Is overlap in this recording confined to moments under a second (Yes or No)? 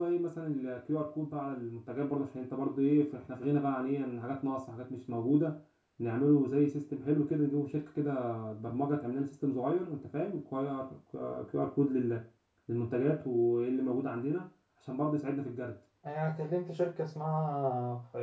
Yes